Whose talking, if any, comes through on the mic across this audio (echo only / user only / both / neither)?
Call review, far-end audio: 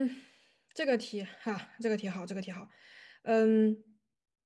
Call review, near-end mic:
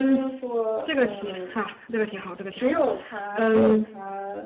both